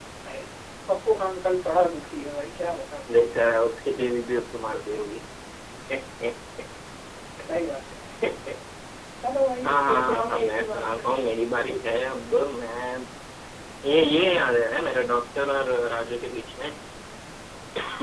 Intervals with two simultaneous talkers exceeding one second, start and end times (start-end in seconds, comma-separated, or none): 9.7-11.0